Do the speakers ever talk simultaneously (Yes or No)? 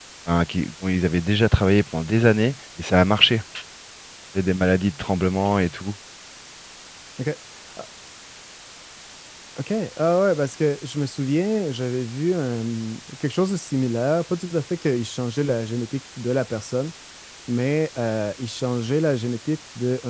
No